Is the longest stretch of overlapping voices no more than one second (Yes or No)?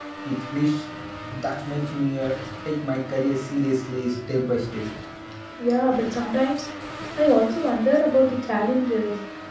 Yes